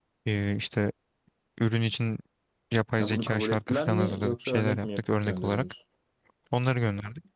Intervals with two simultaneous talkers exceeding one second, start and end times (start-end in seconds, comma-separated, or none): 3.0-5.7